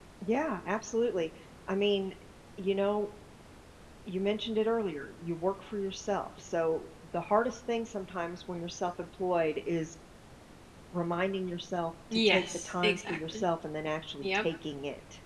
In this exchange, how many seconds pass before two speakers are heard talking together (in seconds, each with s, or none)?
12.1 s